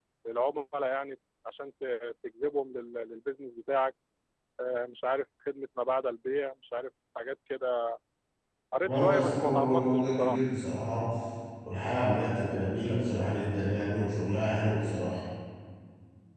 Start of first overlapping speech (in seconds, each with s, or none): 8.8 s